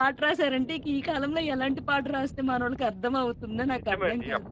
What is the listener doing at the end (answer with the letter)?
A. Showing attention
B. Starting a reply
B